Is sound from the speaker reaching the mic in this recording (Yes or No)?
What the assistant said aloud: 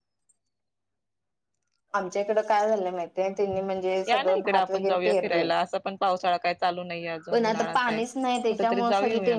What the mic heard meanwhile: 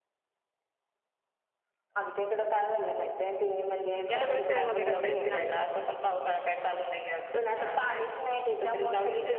Yes